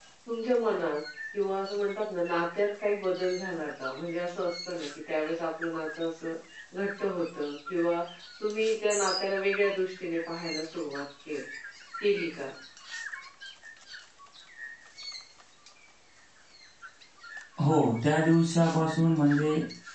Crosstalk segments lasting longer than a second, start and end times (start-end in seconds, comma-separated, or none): none